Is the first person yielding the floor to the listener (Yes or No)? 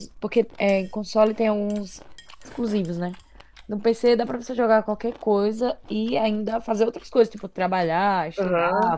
Yes